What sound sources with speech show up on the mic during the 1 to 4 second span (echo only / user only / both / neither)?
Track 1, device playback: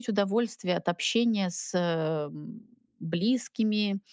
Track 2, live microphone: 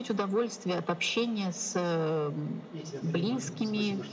both